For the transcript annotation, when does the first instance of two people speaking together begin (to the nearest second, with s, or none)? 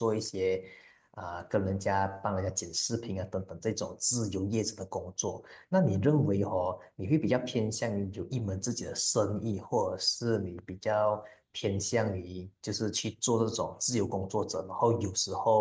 none